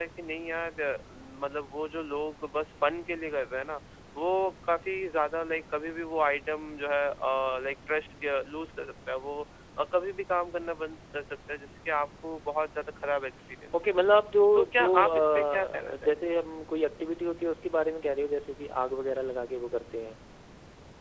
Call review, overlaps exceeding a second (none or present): present